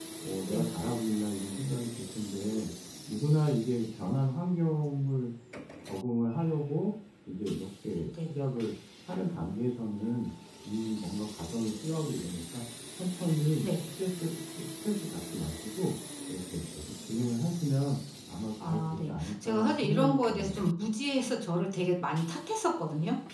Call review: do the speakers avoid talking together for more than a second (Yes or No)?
No